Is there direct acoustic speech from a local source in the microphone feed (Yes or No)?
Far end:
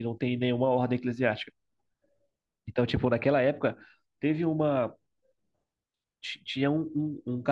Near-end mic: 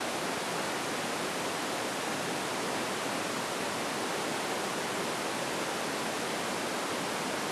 No